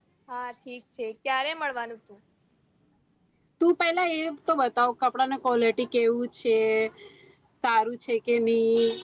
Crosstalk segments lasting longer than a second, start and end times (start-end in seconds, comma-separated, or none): none